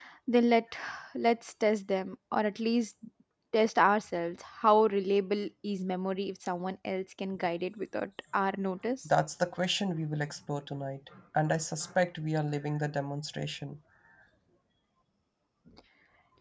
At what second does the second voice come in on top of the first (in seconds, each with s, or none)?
none